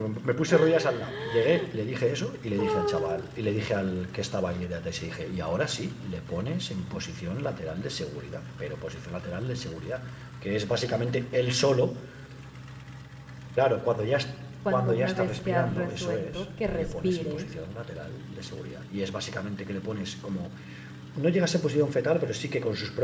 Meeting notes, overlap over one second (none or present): present